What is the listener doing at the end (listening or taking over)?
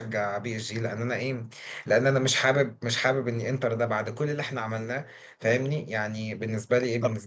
taking over